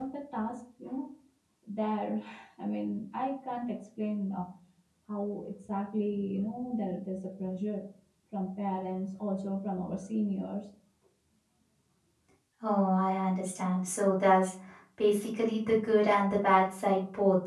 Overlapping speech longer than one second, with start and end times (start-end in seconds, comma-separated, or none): none